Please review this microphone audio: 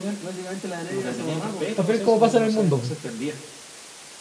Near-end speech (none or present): present